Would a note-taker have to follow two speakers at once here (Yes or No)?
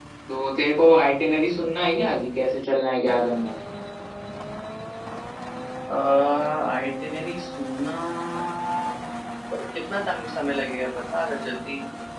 No